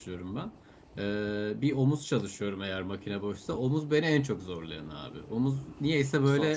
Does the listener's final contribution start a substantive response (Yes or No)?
No